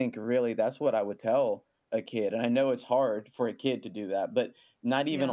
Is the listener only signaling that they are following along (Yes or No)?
Yes